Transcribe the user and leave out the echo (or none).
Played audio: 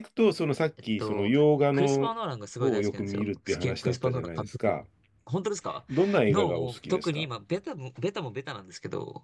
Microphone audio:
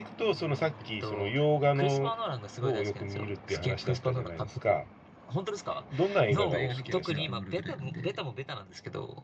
もうずっと映画見てる時なんかもあるぐらいなんで、